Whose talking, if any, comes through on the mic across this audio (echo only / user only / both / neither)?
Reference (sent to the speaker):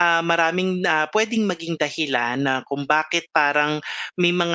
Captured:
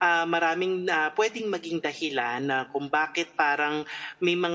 echo only